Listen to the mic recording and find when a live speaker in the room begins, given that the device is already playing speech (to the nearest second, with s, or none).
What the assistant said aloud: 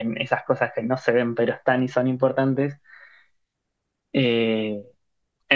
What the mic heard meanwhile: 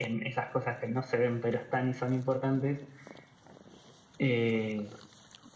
none